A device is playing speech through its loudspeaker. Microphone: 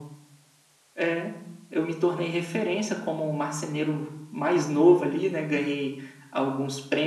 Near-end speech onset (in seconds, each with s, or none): none